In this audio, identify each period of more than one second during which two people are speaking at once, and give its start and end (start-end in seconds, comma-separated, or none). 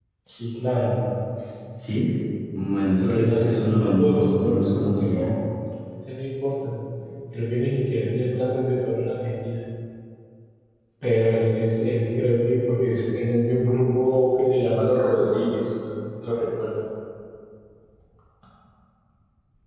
3.0-5.3